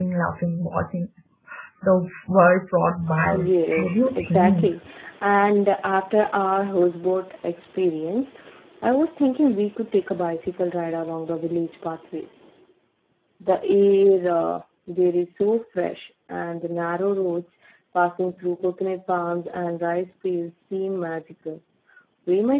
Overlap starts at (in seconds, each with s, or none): 3.3 s